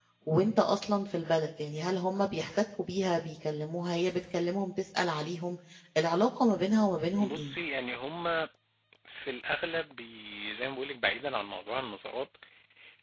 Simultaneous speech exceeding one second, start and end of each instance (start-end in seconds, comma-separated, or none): none